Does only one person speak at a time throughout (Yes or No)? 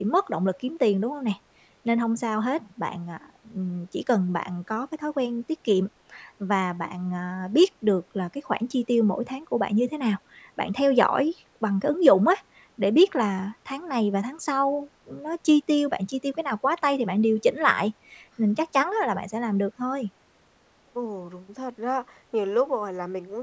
Yes